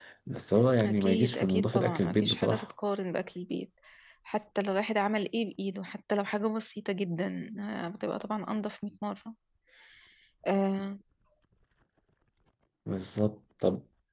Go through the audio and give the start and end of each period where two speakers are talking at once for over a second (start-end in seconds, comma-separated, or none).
0.8-2.6